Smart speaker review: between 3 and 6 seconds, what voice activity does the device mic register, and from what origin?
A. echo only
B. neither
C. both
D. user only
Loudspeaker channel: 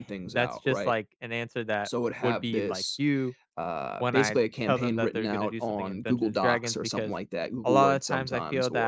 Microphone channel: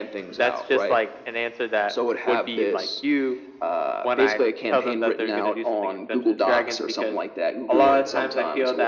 A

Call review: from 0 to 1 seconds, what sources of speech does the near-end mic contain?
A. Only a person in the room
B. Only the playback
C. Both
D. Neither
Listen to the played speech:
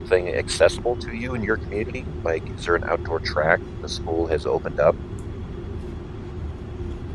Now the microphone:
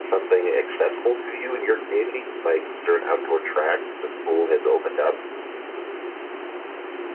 B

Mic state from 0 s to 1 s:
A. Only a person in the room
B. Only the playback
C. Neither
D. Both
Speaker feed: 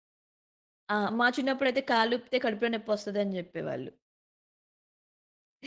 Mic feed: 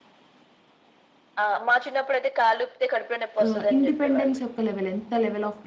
C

